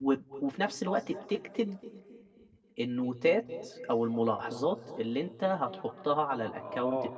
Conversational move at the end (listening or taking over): taking over